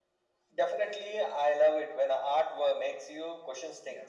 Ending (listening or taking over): taking over